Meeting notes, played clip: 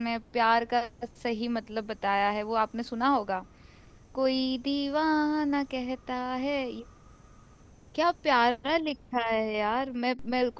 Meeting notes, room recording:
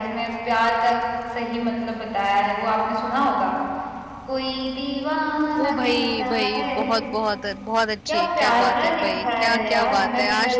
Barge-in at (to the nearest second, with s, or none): 6 s